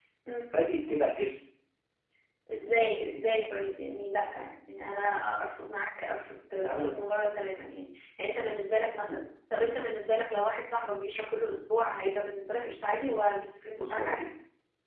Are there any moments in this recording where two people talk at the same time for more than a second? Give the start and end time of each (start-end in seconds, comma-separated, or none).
none